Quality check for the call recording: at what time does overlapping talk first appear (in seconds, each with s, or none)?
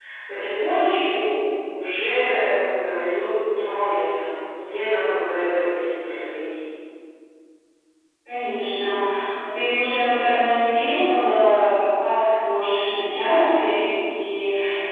none